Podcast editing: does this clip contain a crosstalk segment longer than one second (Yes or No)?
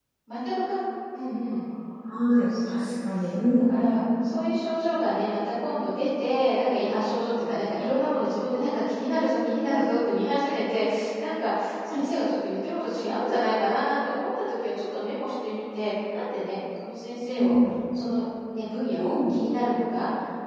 No